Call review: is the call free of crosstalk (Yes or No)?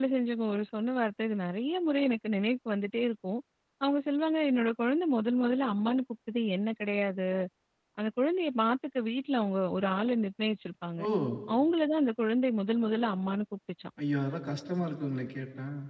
Yes